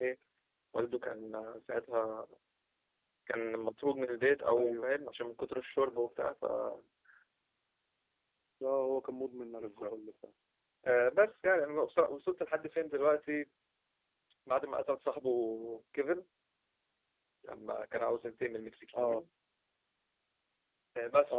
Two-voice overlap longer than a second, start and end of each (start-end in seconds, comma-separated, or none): none